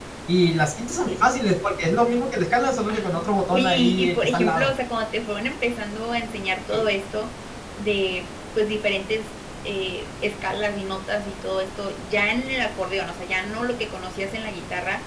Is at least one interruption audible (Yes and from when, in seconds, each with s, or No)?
Yes, from 2.9 s